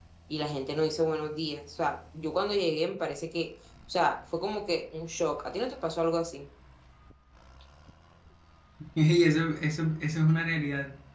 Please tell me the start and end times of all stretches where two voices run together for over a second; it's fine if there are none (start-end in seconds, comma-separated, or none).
none